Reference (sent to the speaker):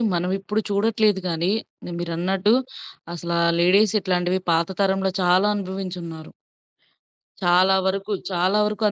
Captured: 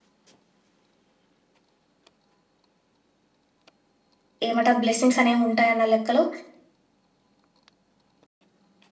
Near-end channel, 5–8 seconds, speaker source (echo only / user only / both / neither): user only